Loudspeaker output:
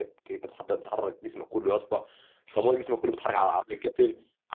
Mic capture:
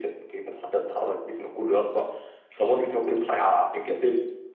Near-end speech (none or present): none